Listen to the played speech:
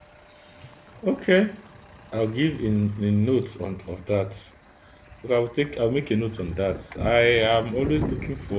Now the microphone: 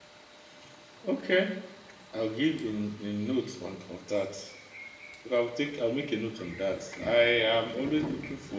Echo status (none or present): present